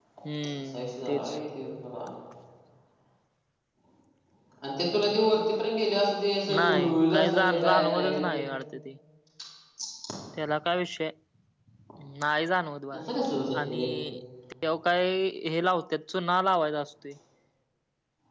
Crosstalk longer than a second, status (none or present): present